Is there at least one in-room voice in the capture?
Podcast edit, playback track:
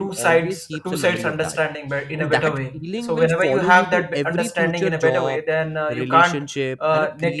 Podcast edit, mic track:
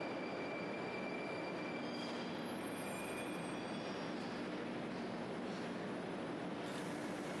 No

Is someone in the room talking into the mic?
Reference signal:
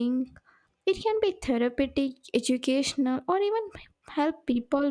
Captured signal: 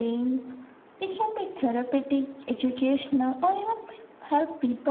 No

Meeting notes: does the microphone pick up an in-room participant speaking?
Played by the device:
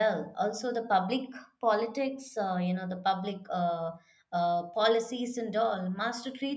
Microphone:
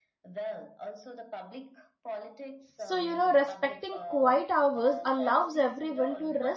Yes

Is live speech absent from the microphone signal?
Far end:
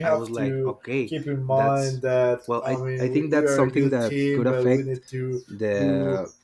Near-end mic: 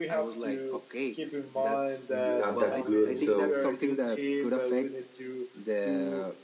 No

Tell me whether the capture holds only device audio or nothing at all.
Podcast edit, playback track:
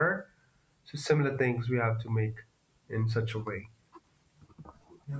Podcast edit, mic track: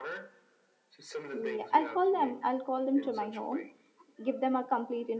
No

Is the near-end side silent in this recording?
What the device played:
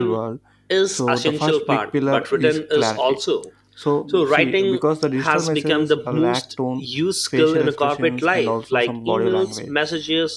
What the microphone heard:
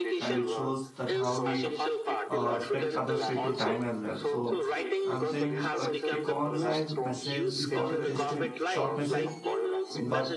No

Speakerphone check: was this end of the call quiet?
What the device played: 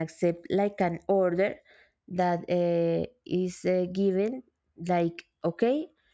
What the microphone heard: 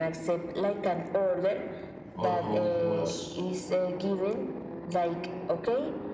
No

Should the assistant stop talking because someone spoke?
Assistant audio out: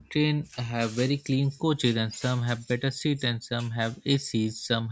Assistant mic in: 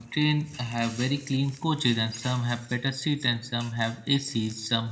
No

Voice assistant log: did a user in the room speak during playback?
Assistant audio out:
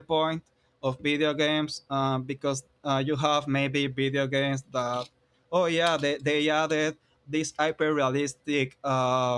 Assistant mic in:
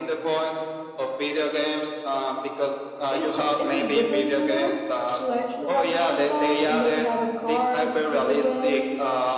Yes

